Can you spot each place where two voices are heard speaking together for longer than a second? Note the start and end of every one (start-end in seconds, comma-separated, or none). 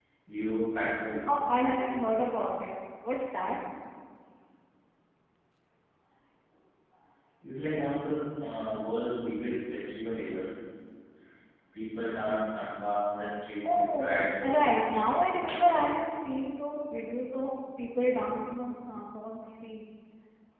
13.7-15.0